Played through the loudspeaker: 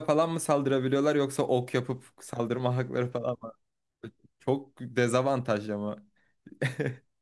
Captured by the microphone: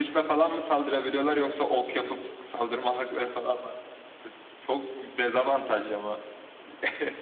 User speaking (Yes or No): No